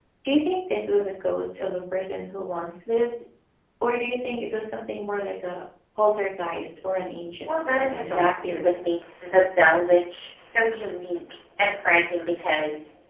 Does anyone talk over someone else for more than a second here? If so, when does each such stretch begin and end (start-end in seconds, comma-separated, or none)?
7.5-8.7